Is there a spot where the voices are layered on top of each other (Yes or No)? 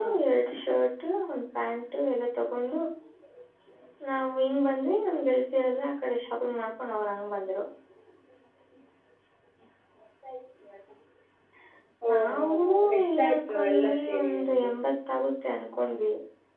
Yes